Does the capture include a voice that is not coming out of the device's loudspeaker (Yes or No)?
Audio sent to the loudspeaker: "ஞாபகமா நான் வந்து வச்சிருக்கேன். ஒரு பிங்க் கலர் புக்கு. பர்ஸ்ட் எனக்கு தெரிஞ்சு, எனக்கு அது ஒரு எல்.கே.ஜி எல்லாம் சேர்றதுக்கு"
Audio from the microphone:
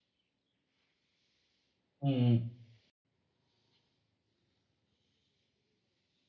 Yes